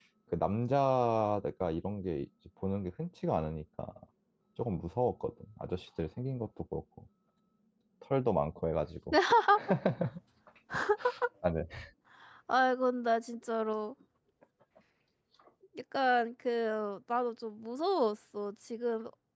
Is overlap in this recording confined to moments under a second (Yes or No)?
Yes